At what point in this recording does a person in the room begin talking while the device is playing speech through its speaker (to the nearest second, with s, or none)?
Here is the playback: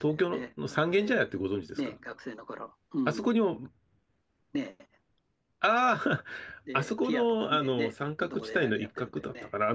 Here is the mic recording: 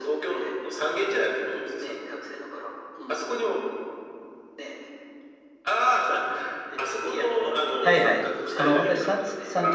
8 s